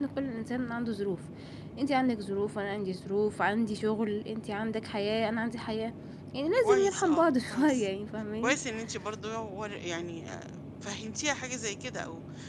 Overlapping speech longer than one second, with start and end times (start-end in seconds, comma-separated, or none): 6.6-7.9